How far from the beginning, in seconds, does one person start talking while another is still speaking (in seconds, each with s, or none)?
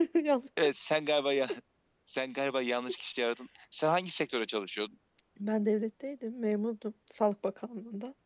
none